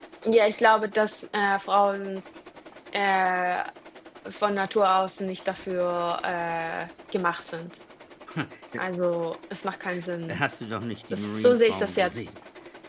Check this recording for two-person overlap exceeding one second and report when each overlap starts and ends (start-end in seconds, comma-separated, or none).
11.1-12.3